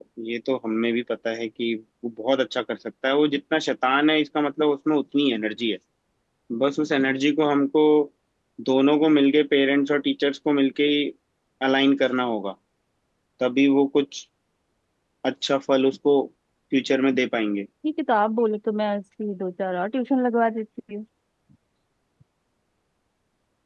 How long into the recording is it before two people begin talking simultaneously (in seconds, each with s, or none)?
none